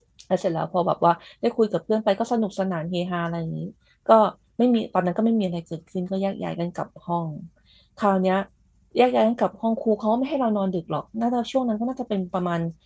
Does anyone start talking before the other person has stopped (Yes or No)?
No